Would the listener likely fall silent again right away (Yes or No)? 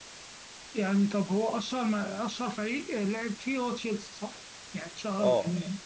No